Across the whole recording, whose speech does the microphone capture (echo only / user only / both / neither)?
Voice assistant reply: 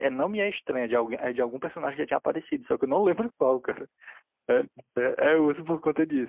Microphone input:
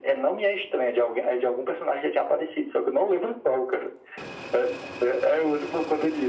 echo only